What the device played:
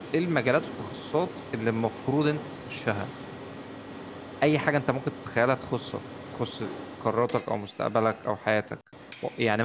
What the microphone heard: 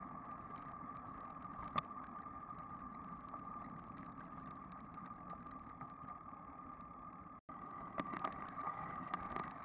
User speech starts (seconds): none

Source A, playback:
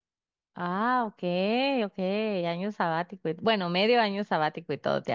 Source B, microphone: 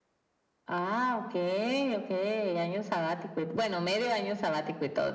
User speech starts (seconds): none

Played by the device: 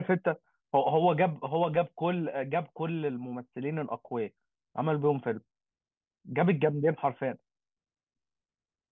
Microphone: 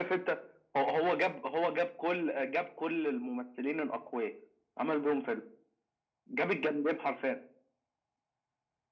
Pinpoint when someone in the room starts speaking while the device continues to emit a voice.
none

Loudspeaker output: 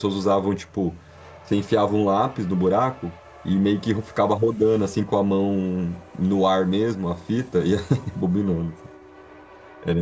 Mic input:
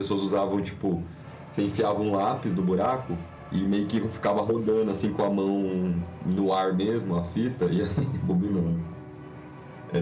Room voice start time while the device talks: none

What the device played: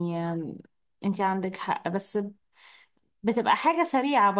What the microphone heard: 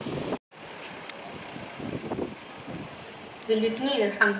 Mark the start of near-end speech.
3.5 s

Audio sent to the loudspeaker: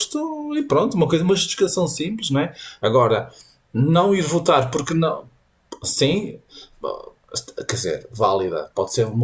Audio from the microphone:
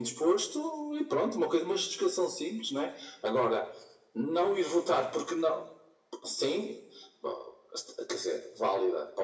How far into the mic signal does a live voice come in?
none

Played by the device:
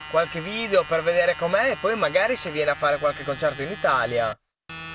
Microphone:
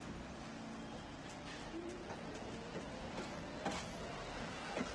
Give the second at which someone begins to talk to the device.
none

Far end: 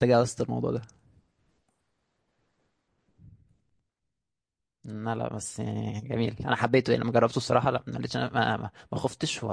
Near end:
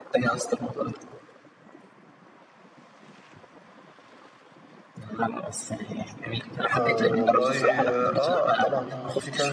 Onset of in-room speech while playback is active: 6.8 s

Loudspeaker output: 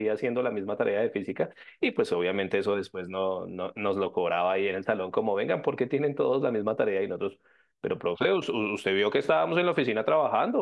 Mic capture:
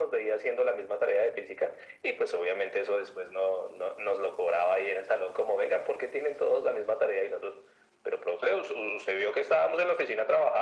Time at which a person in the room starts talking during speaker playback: none

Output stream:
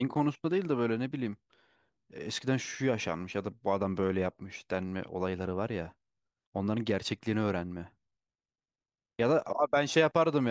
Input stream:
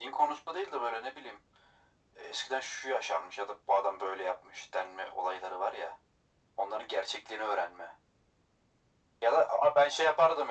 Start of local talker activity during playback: none

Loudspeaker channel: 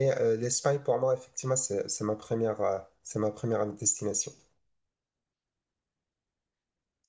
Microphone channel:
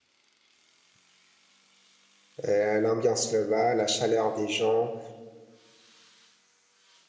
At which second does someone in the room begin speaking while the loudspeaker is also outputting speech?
2.4 s

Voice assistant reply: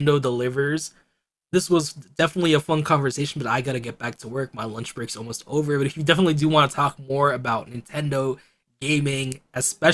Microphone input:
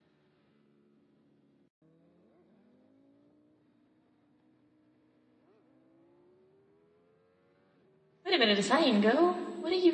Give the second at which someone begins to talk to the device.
8.2 s

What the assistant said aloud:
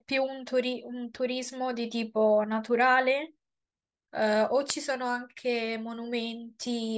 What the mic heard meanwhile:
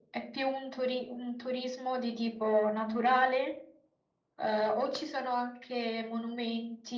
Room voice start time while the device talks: none

